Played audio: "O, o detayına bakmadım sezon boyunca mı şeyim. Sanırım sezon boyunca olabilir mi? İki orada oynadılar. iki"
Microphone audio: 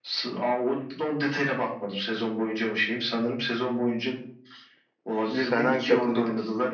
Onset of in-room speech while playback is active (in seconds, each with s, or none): 5.2 s